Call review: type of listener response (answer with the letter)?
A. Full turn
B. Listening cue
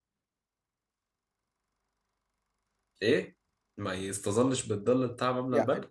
A